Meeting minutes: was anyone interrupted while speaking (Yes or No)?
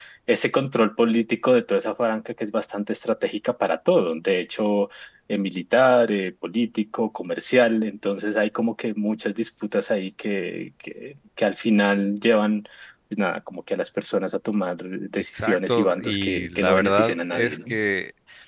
Yes